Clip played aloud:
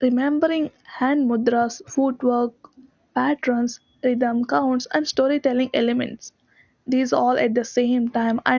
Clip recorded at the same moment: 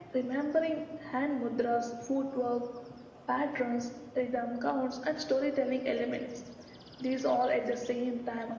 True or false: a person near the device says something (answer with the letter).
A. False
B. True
A